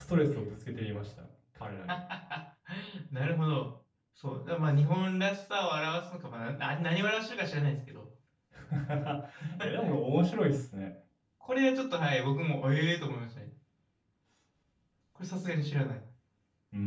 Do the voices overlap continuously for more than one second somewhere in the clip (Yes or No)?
No